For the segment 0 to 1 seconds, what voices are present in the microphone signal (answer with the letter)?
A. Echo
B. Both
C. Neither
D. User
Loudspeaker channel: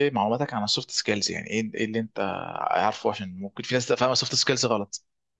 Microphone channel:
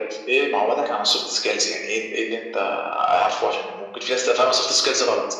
A